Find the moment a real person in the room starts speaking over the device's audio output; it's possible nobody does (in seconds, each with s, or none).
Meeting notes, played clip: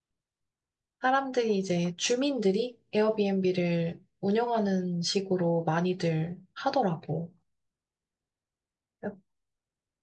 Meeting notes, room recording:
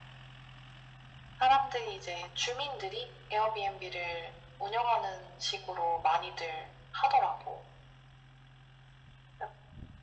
none